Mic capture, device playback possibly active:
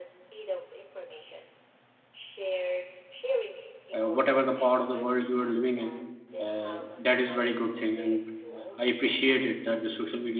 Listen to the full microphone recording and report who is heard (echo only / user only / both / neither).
both